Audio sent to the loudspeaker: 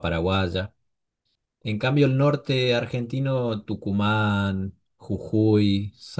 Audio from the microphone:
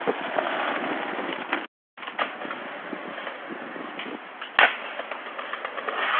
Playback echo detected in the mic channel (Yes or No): No